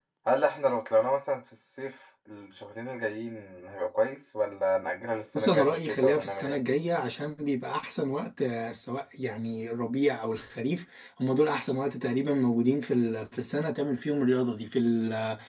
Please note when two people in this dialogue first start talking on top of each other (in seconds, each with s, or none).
5.3 s